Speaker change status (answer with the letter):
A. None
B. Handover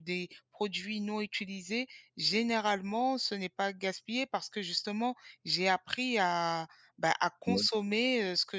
A